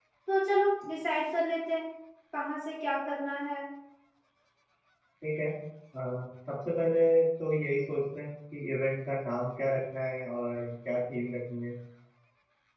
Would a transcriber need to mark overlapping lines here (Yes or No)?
No